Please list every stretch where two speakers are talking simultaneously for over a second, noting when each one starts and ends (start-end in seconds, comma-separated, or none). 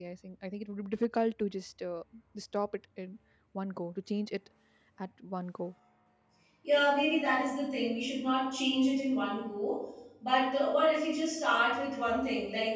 none